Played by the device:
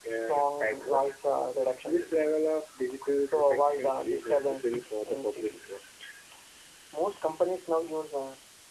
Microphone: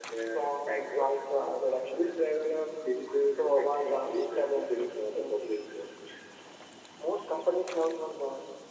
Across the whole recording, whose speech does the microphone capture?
echo only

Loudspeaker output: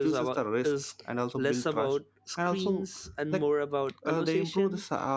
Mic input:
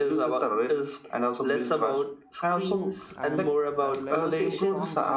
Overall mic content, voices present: both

